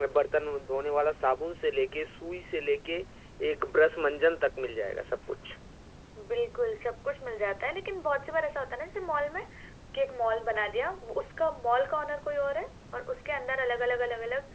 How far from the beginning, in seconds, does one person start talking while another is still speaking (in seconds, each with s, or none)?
none